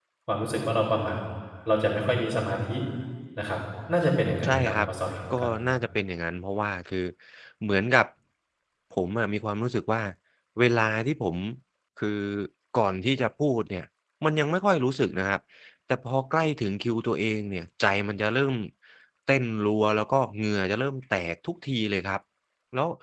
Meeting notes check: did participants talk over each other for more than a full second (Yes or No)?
No